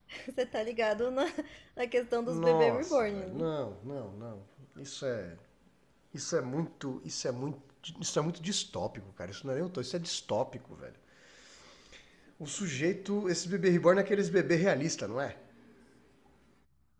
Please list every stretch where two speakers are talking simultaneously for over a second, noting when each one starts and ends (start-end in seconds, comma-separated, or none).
2.3-3.5